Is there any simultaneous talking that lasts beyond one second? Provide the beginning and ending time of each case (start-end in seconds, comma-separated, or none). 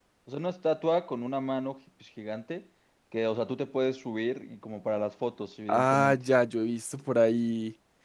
none